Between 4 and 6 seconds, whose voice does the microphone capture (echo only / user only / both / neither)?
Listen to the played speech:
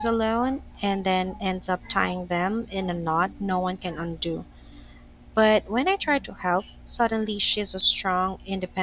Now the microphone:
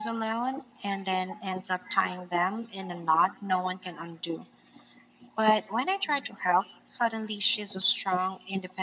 echo only